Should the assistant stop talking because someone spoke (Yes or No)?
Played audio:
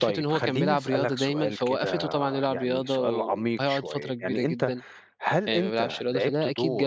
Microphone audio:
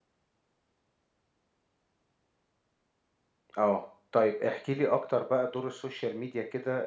Yes